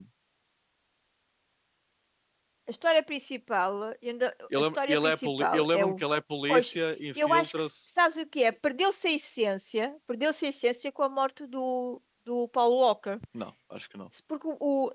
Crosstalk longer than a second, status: present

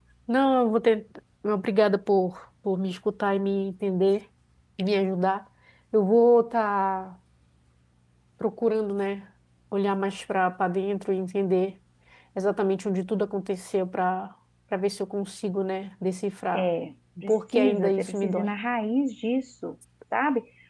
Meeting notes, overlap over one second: present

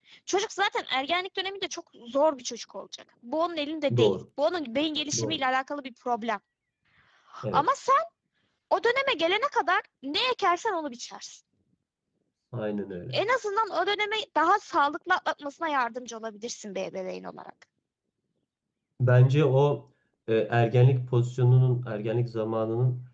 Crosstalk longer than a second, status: none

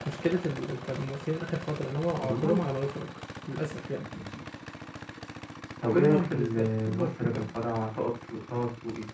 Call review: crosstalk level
present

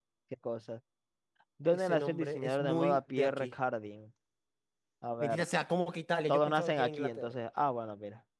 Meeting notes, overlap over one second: present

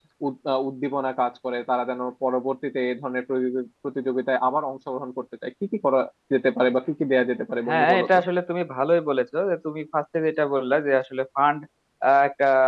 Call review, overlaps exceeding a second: none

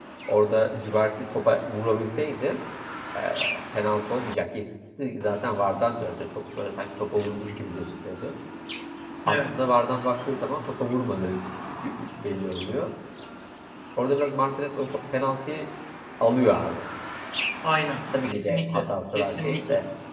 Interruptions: present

